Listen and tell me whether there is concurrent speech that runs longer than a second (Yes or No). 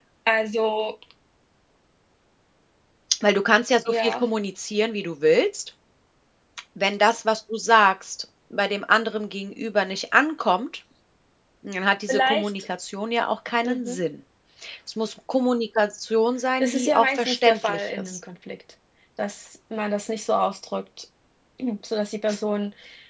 Yes